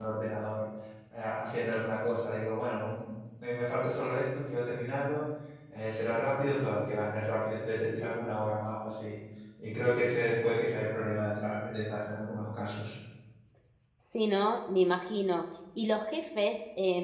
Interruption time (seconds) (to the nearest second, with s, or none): none